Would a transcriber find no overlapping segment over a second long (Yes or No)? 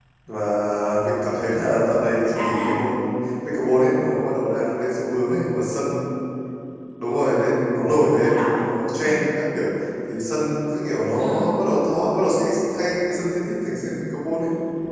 Yes